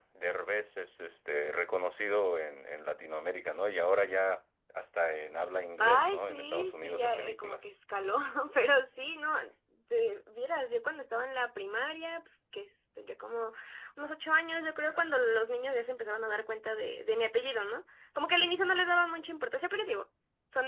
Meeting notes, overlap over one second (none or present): present